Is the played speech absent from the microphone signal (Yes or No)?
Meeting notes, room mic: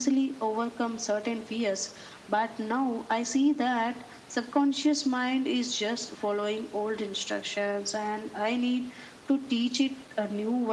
No